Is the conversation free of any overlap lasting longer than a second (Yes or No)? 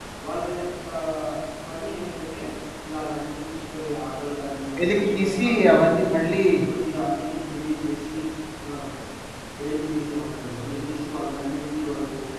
No